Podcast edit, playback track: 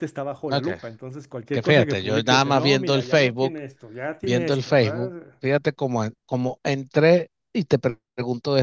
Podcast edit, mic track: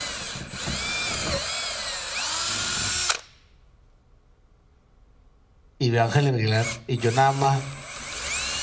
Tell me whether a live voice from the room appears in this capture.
Yes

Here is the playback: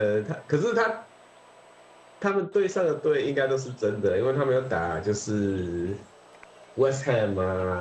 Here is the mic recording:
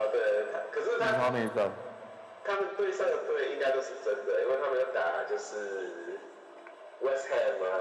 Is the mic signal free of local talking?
No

